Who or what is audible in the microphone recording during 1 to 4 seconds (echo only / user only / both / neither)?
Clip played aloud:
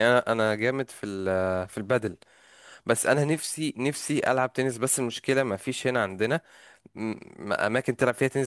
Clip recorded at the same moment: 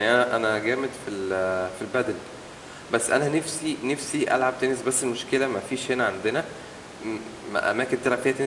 echo only